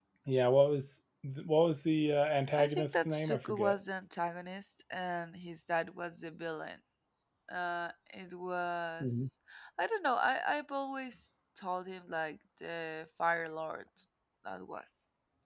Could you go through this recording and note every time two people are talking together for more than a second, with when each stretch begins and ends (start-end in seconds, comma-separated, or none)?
2.5-3.8